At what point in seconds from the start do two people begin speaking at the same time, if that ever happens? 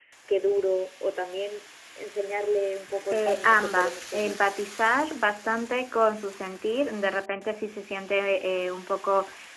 3.1 s

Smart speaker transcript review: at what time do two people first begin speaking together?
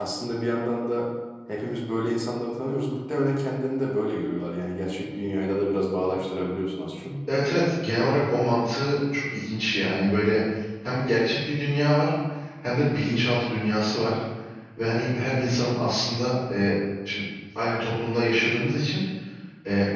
none

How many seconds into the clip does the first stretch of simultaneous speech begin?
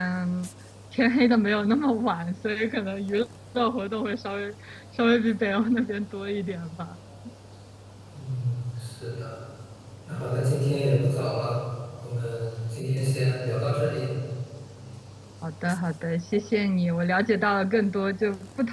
none

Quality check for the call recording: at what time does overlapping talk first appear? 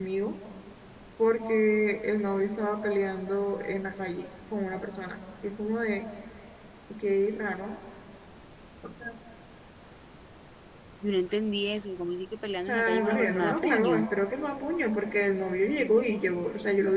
12.6 s

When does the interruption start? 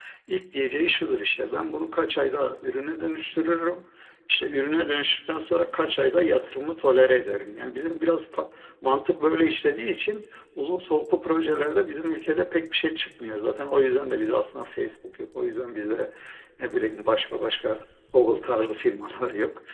none

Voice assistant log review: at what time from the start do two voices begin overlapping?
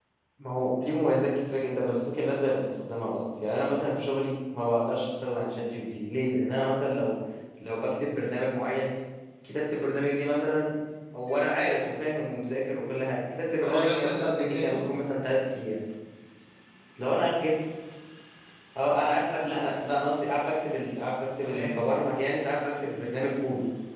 13.6 s

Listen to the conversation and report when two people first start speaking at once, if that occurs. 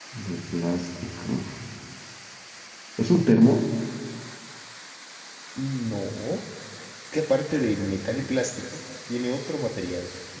none

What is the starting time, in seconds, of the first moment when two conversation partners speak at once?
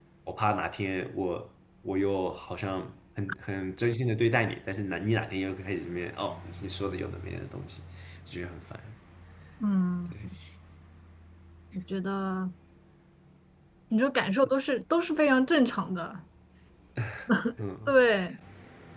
none

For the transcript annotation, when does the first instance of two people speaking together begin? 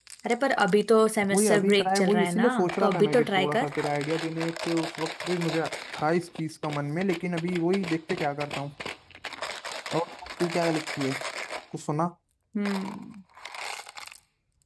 1.2 s

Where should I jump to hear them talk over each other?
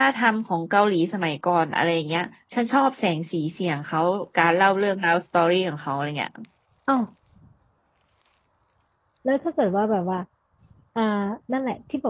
none

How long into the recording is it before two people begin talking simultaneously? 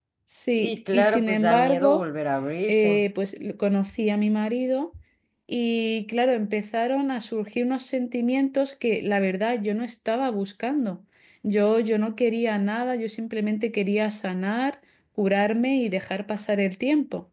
0.6 s

